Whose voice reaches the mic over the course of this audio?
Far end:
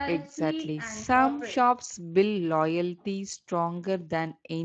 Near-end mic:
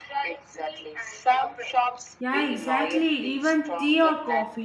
both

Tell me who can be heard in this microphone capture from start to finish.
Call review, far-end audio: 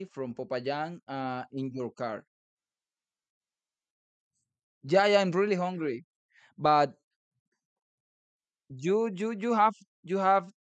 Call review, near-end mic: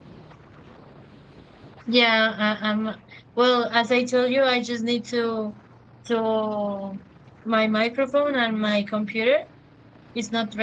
user only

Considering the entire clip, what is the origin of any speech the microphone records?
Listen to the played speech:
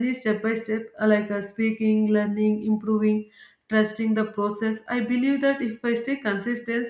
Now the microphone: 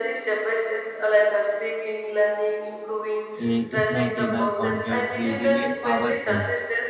both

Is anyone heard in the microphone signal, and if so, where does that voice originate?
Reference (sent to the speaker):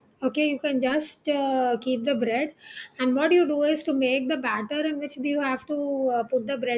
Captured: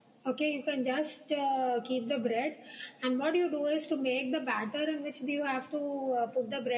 echo only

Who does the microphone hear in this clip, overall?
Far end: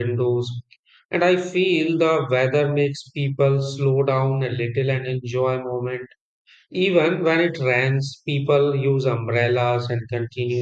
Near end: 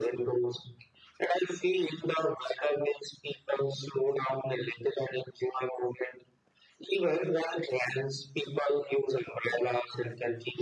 echo only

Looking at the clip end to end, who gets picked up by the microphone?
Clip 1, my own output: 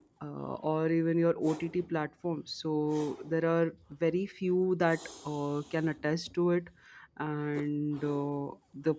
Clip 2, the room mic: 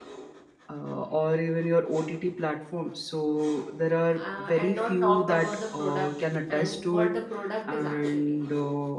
both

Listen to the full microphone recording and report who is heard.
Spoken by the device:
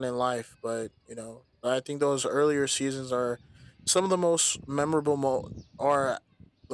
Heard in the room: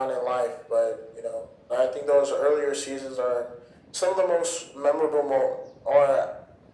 echo only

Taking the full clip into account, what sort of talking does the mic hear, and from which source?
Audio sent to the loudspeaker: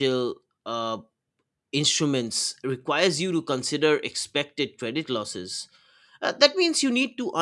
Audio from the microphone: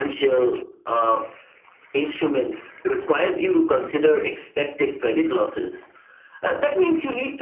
echo only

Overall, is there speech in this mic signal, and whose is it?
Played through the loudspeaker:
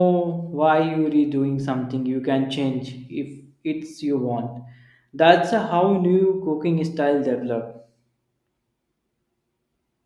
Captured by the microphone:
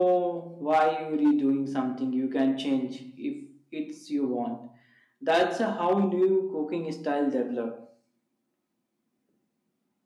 echo only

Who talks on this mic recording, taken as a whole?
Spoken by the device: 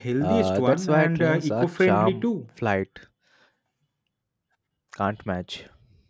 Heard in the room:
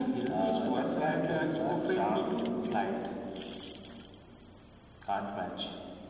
echo only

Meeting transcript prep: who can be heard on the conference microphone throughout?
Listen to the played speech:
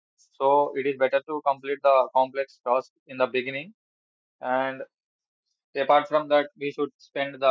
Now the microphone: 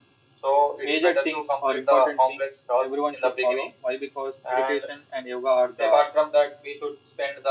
both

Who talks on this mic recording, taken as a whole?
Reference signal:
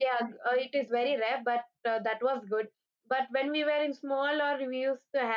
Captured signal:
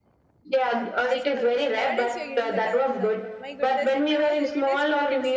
both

